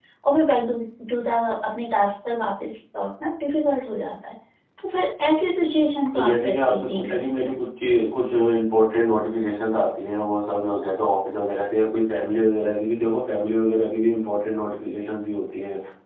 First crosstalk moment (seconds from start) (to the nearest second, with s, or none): 6 s